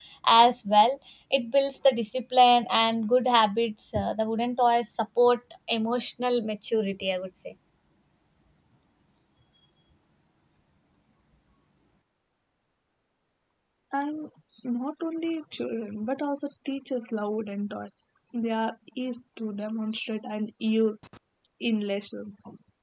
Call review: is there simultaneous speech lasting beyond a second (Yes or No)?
No